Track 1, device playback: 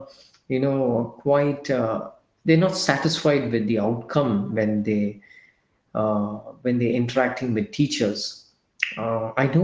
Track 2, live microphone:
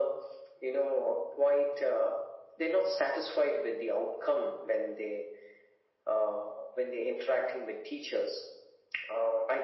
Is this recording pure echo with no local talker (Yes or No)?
Yes